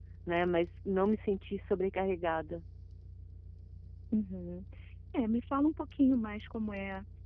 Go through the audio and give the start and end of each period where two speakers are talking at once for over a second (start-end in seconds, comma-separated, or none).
none